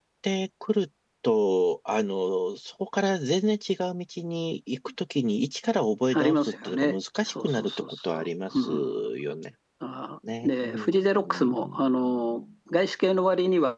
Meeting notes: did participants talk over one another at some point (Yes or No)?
Yes